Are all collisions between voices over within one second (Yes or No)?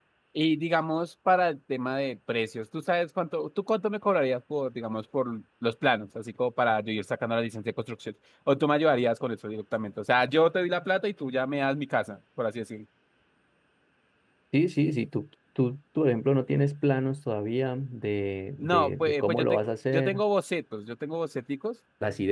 No